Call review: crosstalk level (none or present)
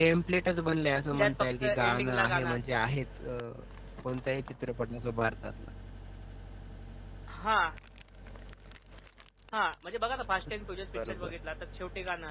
present